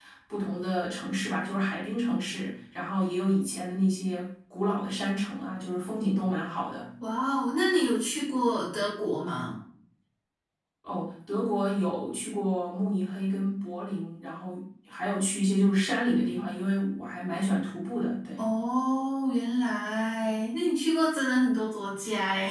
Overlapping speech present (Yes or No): No